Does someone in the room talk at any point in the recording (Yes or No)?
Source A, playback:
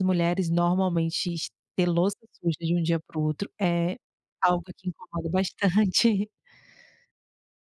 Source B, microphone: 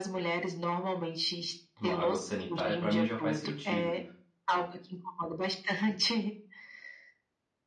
Yes